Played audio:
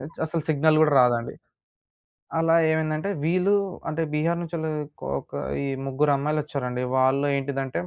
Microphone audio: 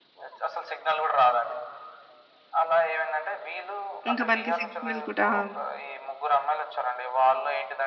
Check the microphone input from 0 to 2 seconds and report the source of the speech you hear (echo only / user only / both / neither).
echo only